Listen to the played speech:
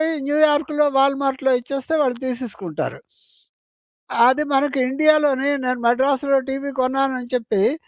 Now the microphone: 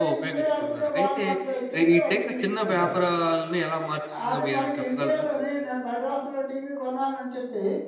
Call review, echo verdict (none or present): present